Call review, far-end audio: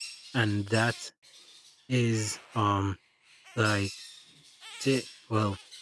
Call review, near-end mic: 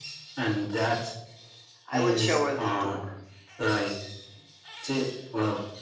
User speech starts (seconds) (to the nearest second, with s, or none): 2 s